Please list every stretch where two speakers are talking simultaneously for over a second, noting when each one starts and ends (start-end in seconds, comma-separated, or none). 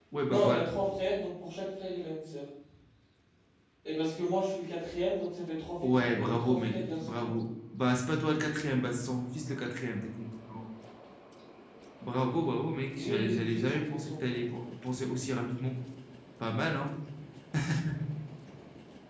5.8-7.3, 13.0-14.4